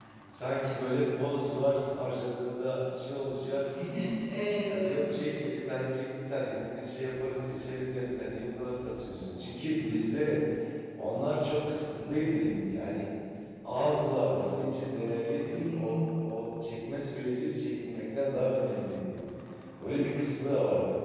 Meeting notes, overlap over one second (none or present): none